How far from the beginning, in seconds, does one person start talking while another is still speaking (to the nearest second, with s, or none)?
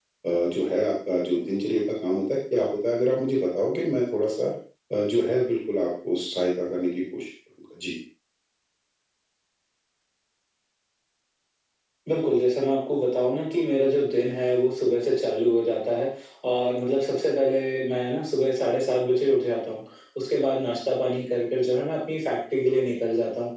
none